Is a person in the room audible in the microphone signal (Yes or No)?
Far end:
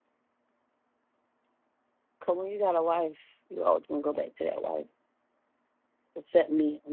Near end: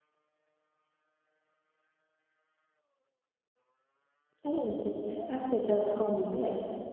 Yes